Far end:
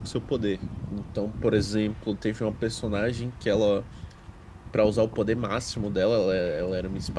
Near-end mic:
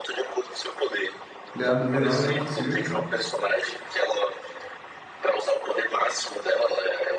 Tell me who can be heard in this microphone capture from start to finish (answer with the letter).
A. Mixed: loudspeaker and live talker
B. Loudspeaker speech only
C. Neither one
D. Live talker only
A